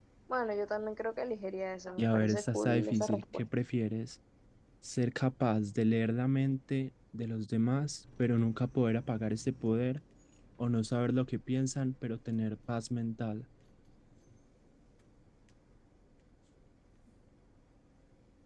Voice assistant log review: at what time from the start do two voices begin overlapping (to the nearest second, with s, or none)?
2 s